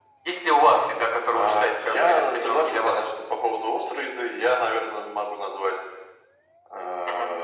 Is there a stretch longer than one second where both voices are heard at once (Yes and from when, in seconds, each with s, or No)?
Yes, from 1.3 s